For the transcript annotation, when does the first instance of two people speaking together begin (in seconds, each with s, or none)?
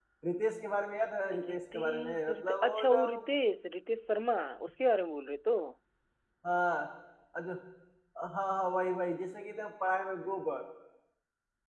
1.3 s